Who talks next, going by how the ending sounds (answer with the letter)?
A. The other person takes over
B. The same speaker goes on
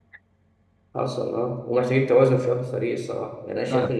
B